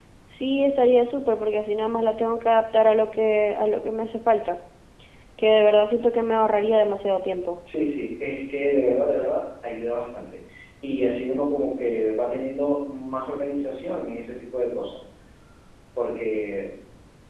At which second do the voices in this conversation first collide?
none

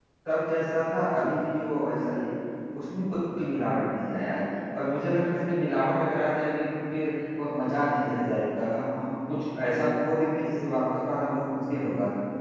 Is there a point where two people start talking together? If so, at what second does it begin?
none

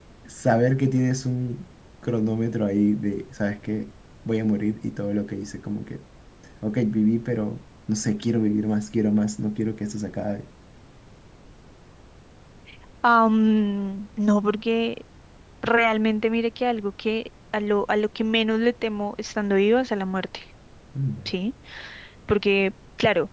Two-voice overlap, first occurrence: none

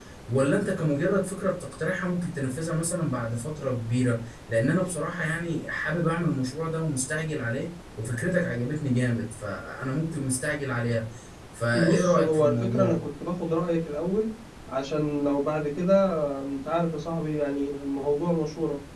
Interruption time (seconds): 12 s

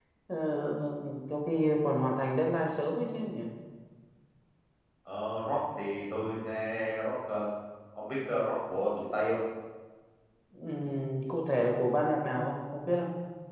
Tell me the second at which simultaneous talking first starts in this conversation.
none

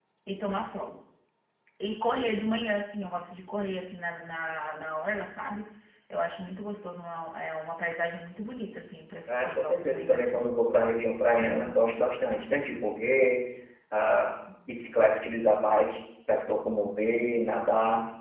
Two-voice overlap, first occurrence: 9 s

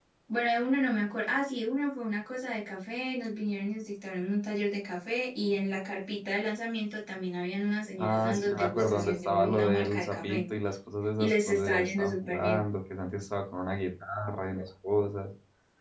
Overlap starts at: 8 s

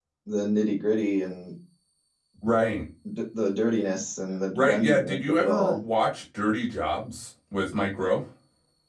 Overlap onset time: 5 s

